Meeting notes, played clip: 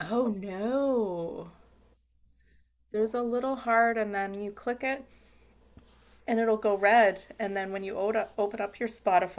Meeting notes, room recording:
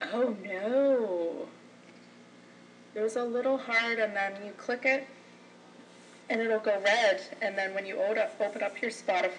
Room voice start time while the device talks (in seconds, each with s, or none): none